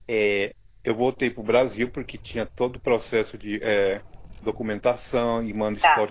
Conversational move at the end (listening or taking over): listening